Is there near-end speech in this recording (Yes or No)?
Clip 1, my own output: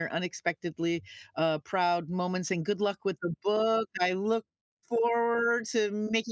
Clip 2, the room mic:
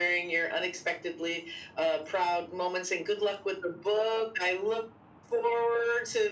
No